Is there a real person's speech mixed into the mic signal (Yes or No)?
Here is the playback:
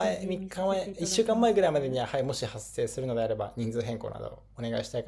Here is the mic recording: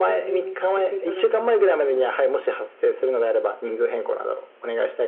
No